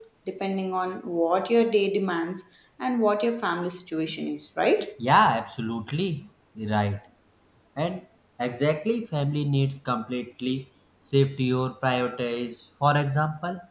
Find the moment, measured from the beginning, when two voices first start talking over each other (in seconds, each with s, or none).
none